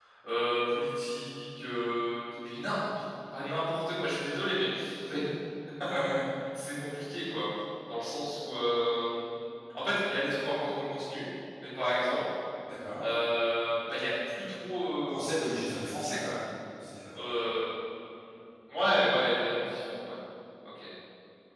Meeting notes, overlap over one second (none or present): none